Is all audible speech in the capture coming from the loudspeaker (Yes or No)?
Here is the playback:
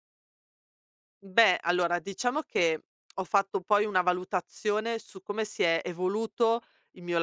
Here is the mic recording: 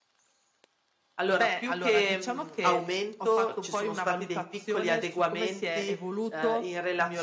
No